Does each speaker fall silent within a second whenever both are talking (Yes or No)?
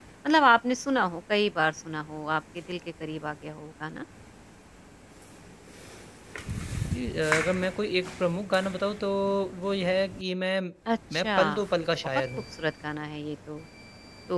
Yes